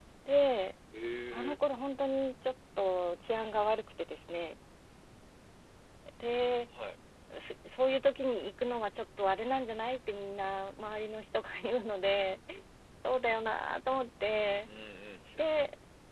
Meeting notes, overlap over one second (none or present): none